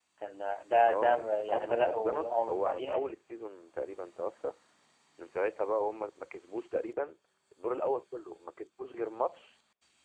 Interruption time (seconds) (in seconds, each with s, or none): 0.9 s